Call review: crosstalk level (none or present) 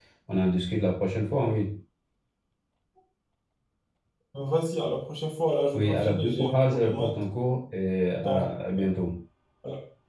present